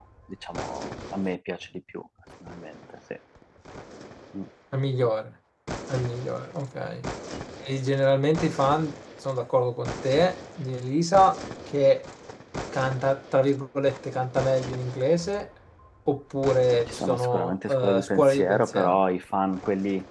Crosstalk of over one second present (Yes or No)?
Yes